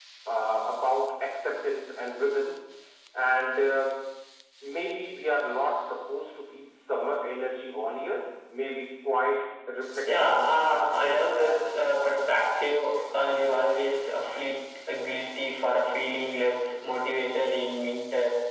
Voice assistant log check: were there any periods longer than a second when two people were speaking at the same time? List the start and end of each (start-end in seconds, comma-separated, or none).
10.2-12.1